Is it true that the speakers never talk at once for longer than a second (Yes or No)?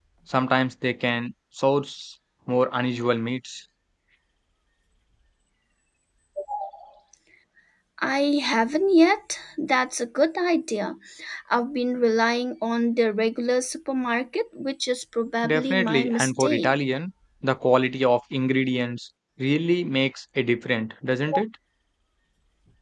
No